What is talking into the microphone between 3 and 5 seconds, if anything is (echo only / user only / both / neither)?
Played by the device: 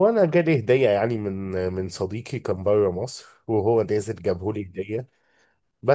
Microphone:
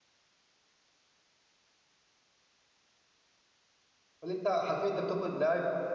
user only